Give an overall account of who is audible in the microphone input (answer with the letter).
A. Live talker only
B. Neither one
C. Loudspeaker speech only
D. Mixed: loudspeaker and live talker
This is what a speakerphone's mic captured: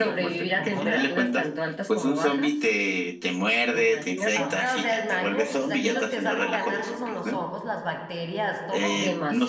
D